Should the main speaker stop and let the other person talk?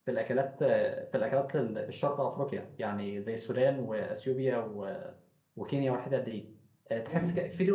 No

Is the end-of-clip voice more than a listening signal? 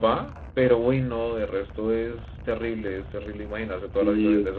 Yes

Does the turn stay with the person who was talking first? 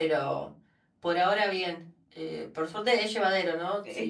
Yes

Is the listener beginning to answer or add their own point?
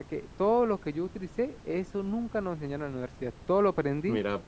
No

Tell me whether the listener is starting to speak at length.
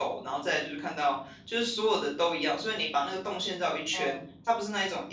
No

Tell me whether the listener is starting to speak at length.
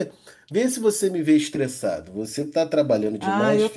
Yes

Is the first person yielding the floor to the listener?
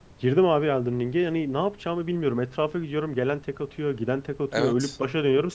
No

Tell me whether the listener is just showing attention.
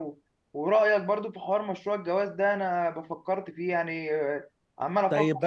No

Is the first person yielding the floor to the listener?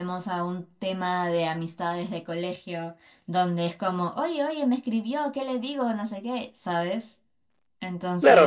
Yes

